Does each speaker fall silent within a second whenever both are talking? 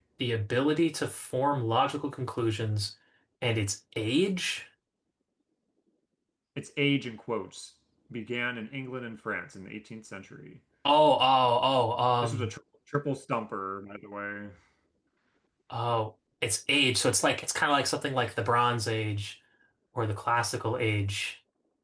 Yes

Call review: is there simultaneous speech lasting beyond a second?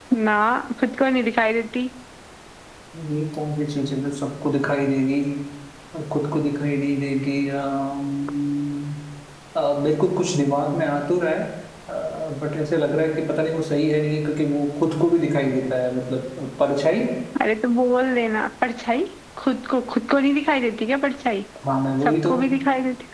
No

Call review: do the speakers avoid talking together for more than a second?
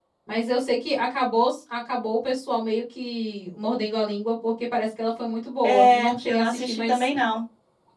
No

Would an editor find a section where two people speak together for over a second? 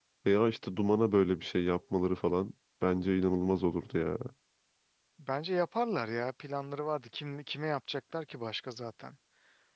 No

